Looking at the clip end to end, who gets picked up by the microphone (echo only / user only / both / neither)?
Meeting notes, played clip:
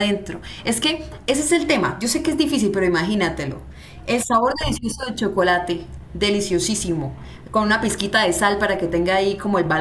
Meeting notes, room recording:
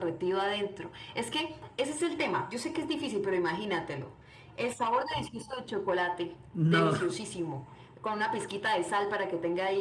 both